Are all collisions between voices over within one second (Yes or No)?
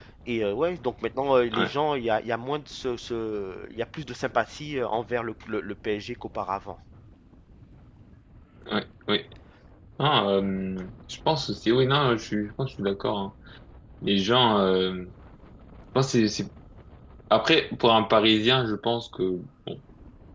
Yes